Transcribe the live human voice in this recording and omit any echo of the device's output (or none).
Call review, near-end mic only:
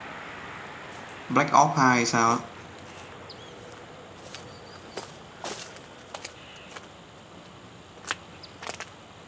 Black Ops 2 hay sao á